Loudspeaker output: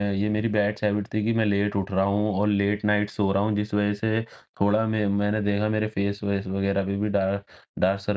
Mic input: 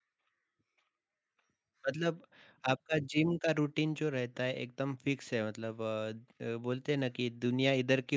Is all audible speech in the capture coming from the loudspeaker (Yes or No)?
No